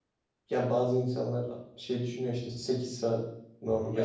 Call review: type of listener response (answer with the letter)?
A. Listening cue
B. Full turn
A